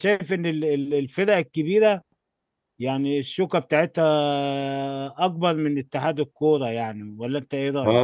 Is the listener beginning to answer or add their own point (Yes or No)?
Yes